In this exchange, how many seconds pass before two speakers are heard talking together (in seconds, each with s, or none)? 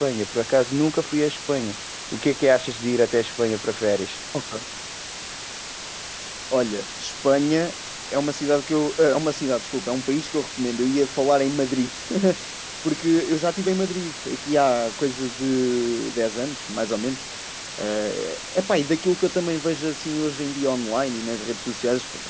none